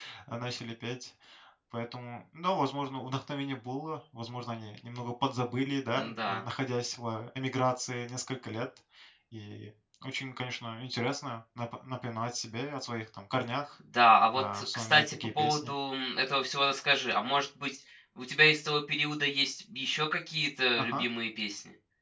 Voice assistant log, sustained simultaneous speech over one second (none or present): present